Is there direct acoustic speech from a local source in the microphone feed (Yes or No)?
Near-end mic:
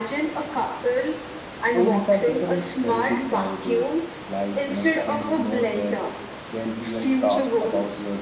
Yes